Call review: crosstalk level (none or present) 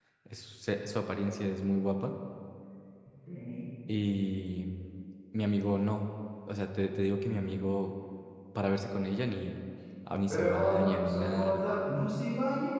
present